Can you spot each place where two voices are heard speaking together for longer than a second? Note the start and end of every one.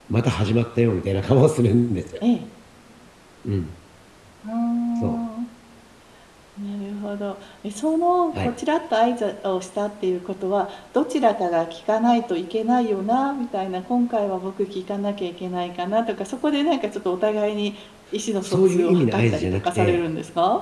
18.4-20.0

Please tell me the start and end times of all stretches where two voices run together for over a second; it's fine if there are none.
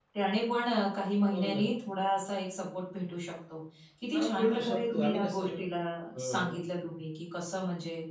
4.1-5.6

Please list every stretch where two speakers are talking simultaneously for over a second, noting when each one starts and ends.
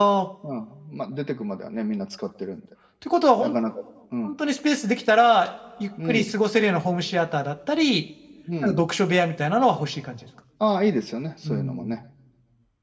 none

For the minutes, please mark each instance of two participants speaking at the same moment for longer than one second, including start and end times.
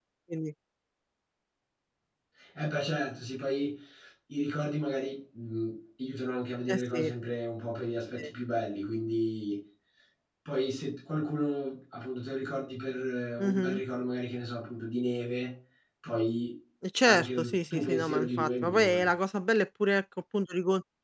17.0-19.1

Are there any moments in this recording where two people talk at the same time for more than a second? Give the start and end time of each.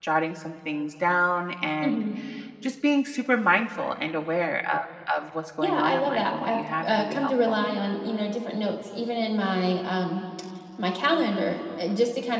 5.6-7.7

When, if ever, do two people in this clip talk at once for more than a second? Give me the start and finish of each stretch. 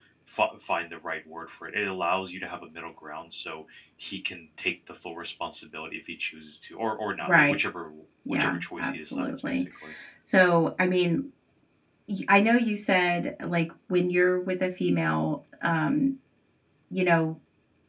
8.3-9.6

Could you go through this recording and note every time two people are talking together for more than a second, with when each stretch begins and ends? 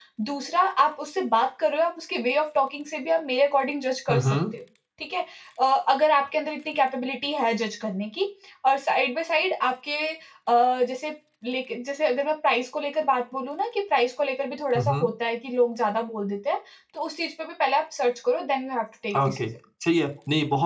none

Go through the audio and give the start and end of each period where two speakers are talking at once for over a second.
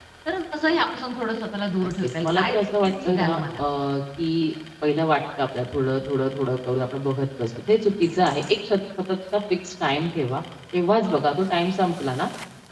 1.8-3.3

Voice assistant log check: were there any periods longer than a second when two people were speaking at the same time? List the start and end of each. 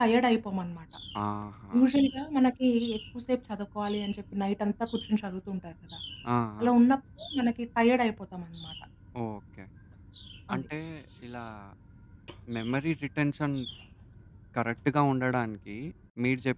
none

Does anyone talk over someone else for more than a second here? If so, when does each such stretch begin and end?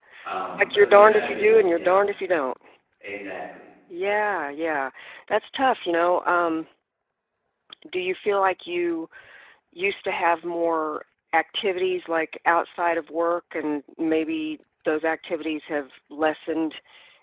0.6-2.0

